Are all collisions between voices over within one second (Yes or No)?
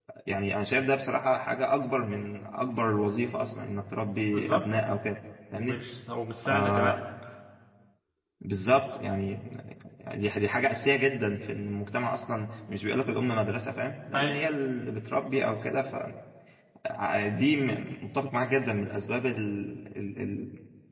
Yes